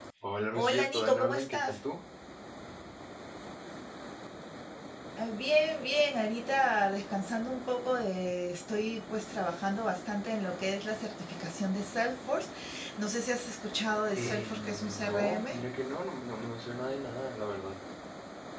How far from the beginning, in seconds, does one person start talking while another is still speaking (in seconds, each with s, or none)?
0.5 s